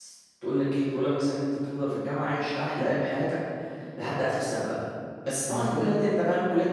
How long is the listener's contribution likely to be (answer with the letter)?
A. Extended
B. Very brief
B